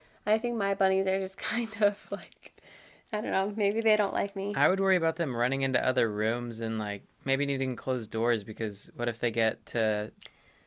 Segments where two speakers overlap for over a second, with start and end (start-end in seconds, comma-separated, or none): none